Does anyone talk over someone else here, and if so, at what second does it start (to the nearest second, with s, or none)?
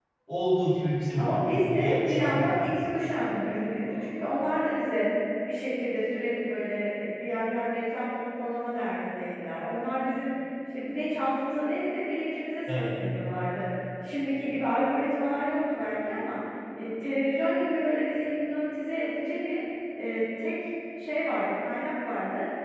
1 s